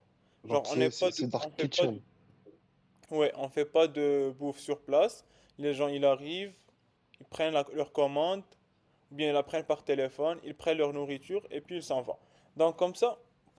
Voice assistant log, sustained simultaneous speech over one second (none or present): present